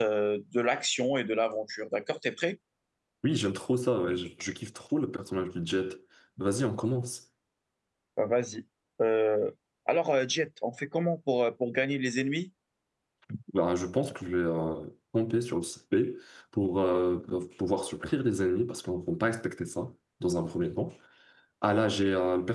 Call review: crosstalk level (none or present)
none